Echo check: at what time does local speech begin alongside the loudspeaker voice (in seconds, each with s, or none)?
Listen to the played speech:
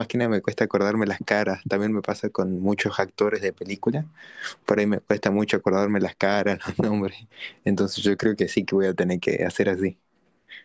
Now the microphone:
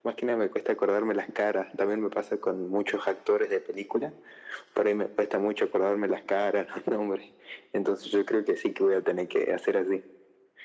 none